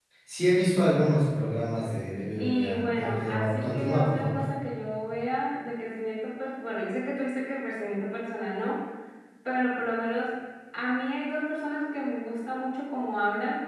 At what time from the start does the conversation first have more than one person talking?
2.4 s

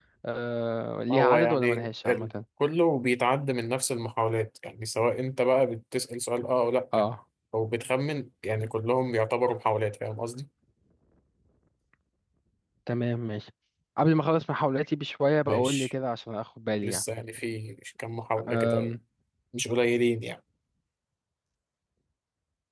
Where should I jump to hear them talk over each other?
1.1 s

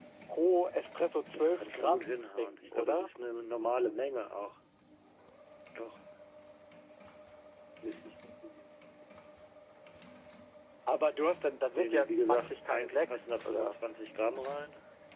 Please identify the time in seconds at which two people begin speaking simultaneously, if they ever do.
1.3 s

